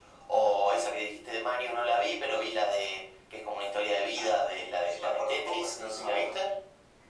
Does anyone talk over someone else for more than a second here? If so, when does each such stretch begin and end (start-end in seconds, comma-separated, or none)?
4.2-6.4